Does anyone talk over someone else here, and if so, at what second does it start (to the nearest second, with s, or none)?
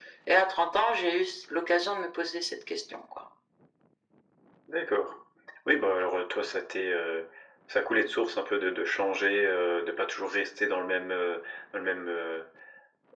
none